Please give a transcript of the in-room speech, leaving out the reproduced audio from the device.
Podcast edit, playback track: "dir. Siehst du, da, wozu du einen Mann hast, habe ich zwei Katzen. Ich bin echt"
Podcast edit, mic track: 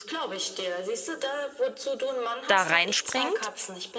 da reinspringt.

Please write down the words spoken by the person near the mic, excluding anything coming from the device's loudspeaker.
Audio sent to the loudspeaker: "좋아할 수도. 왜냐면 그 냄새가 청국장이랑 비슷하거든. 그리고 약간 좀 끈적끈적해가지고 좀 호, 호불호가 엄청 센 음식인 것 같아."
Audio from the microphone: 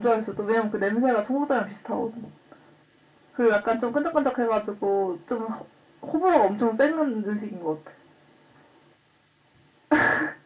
none

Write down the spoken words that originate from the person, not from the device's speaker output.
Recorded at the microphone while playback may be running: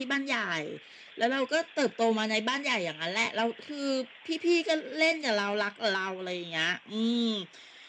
none

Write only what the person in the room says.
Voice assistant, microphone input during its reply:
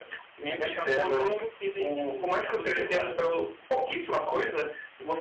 Daí acabou o jogo, eu fiquei meio que, tipo, putz, e agora, né?

